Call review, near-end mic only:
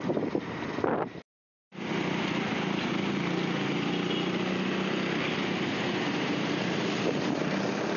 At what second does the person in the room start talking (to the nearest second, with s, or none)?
none